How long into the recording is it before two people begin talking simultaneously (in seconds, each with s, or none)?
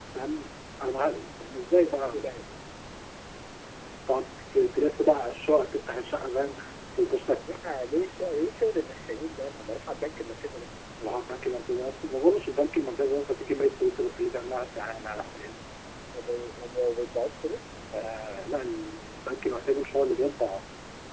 none